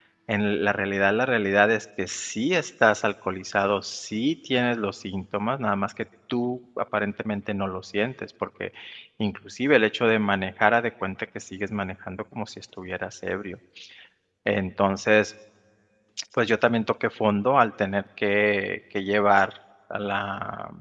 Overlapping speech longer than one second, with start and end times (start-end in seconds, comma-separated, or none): none